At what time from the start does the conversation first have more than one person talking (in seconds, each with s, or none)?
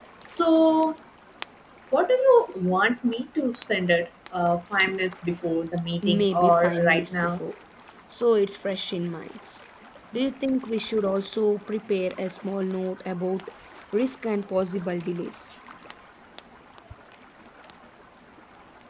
6.0 s